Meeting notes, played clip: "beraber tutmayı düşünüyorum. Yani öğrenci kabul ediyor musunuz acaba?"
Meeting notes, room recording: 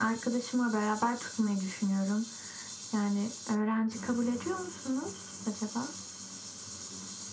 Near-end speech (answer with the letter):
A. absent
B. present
A